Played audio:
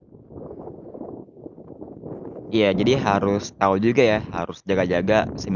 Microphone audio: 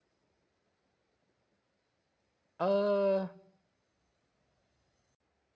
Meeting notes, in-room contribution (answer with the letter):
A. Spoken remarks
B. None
A